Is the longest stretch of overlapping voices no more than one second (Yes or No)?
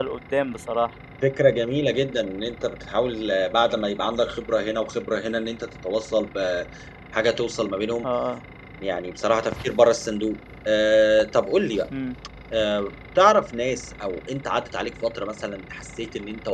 Yes